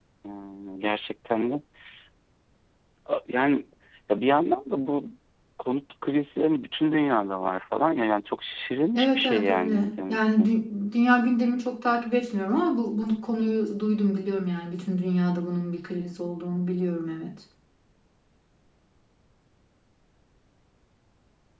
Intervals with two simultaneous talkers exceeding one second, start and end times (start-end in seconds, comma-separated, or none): 8.9-10.5